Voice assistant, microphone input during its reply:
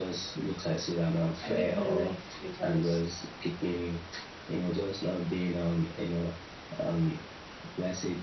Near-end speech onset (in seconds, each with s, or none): 1.4 s